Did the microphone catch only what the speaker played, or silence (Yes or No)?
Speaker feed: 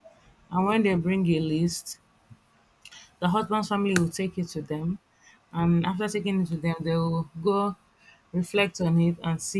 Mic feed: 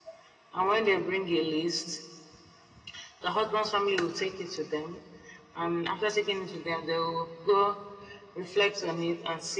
Yes